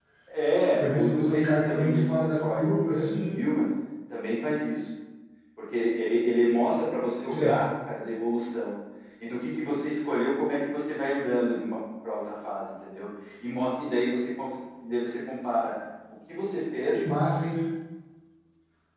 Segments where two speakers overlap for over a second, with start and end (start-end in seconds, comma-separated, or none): 0.8-3.4